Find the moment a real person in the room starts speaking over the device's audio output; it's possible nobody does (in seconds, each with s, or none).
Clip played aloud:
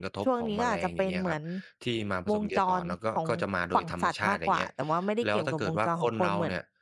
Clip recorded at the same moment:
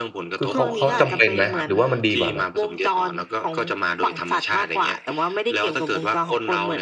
0.4 s